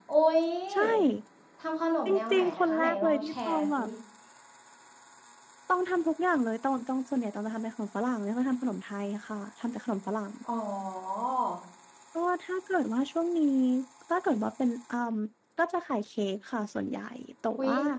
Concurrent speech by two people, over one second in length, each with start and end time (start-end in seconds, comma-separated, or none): 2.0-3.8